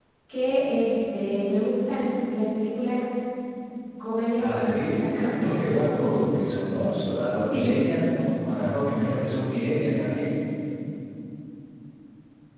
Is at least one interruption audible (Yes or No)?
Yes